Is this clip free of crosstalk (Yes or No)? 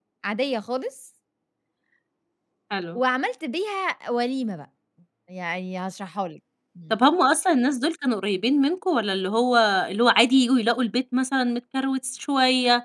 Yes